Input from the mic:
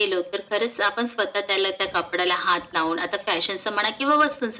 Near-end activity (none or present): none